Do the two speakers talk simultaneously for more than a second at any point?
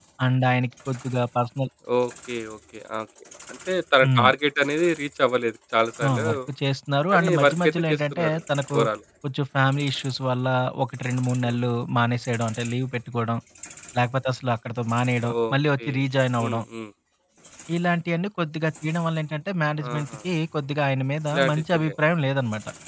Yes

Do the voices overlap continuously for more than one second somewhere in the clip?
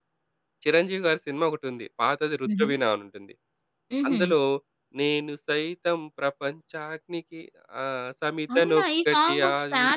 Yes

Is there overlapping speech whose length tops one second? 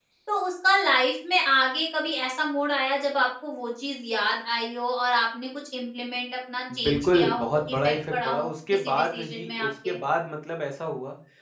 Yes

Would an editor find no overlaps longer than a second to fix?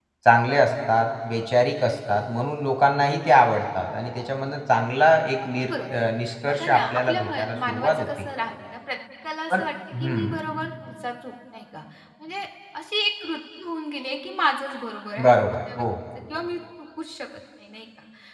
No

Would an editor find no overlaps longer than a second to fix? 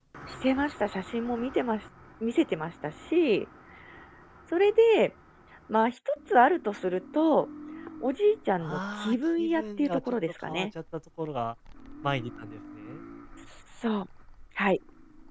No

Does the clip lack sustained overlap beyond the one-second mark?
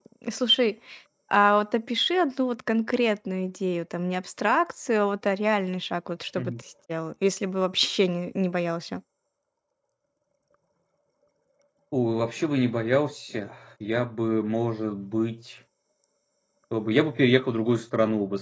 Yes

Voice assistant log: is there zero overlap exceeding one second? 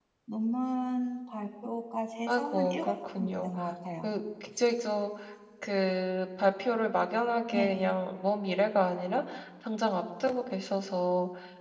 No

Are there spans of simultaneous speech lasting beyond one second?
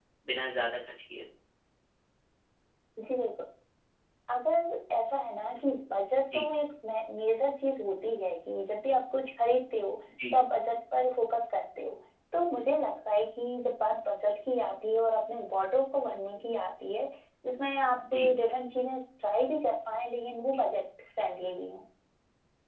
No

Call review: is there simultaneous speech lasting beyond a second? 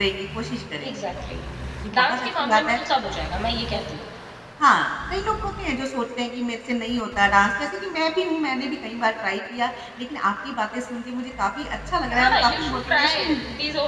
Yes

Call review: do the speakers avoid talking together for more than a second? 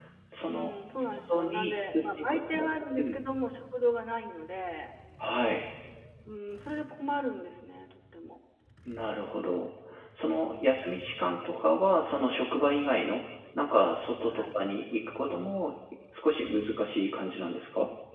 No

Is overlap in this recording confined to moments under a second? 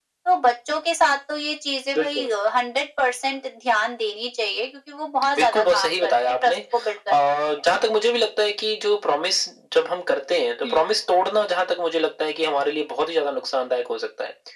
No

